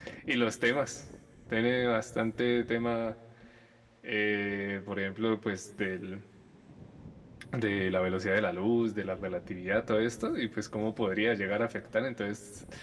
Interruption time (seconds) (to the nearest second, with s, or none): none